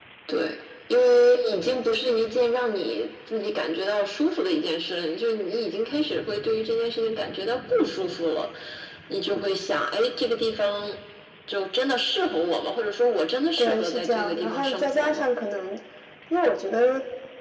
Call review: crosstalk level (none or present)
present